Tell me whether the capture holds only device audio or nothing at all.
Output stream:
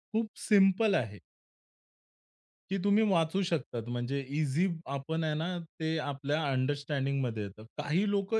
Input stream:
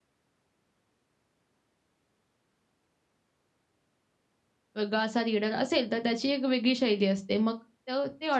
No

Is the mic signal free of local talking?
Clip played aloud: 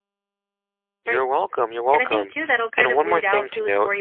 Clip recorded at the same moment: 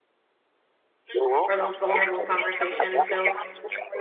No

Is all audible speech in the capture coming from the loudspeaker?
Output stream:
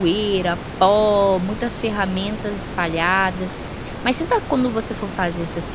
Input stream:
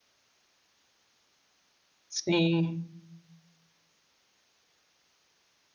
No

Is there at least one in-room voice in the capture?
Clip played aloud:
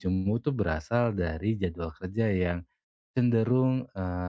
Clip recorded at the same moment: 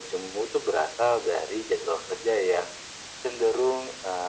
No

